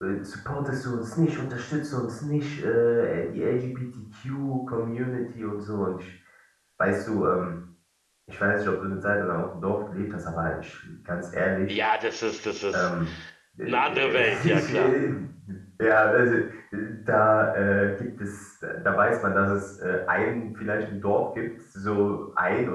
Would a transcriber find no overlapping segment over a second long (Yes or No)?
No